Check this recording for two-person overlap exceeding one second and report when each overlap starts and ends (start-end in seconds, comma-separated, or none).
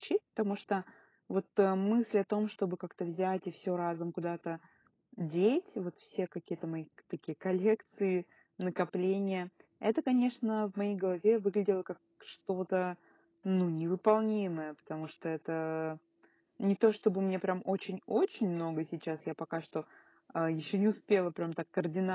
none